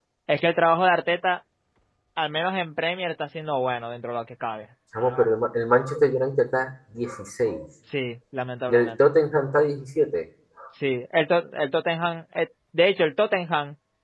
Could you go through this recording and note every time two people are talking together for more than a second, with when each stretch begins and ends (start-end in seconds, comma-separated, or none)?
none